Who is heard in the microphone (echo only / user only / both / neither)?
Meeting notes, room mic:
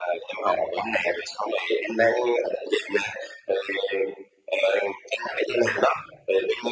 echo only